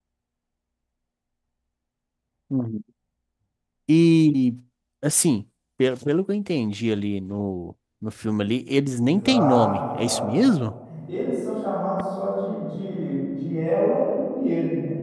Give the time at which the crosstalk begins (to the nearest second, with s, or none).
9 s